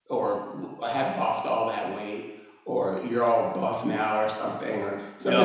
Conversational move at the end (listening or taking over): listening